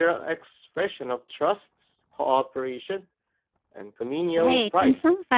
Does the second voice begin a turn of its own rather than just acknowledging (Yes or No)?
Yes